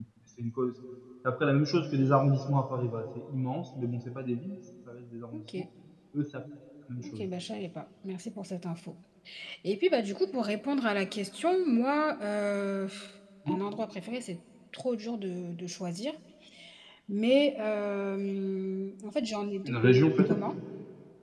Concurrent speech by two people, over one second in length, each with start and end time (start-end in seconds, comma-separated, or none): none